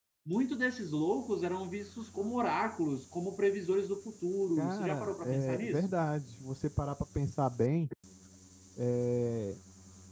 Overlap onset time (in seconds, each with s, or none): 4.6 s